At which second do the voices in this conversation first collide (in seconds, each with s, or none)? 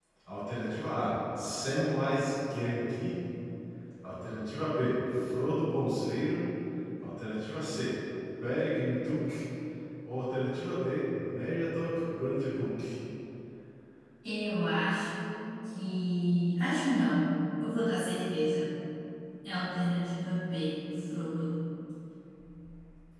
none